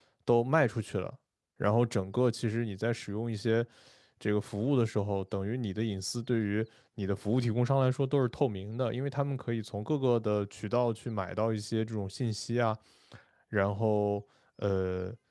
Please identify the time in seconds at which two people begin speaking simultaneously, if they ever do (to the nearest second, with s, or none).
none